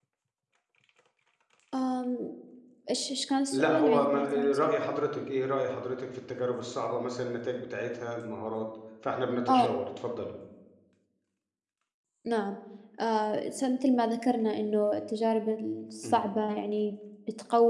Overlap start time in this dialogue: 4 s

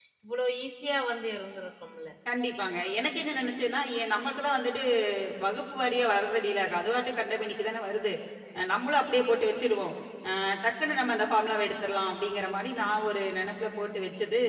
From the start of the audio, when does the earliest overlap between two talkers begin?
none

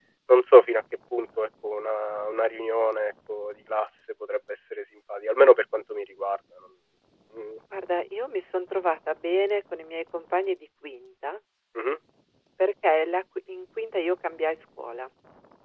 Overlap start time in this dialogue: none

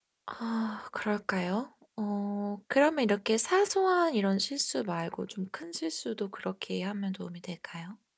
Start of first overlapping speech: none

